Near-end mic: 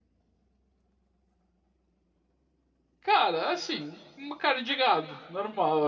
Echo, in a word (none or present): none